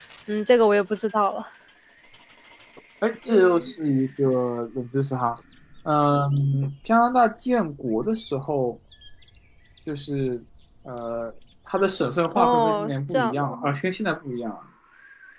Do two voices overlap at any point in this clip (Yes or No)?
Yes